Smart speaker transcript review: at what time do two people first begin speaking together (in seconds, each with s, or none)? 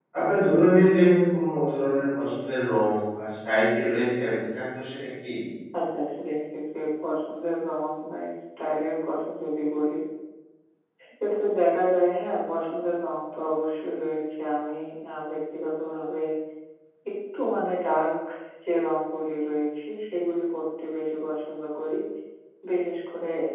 none